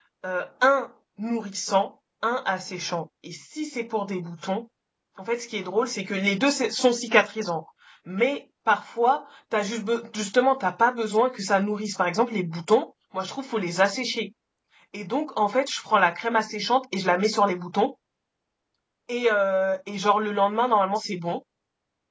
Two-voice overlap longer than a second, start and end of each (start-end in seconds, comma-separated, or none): none